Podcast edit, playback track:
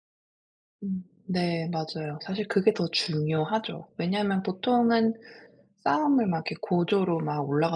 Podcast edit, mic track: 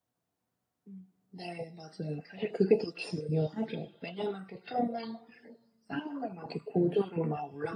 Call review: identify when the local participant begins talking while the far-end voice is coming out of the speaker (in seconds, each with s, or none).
none